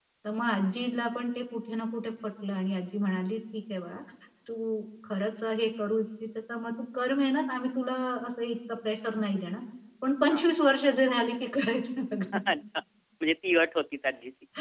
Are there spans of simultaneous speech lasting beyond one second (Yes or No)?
No